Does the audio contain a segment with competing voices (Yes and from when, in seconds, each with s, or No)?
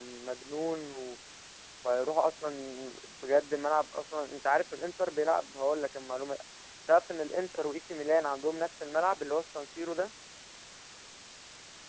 No